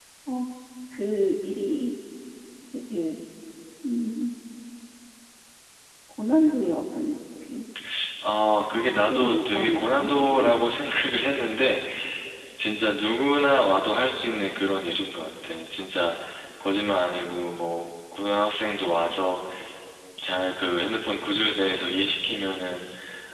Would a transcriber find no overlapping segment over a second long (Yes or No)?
No